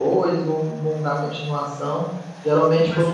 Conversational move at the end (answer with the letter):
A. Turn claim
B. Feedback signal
B